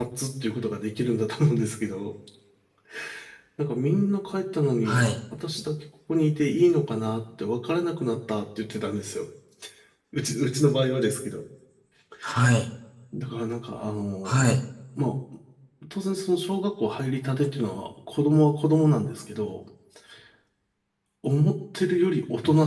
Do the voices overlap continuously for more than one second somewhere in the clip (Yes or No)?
No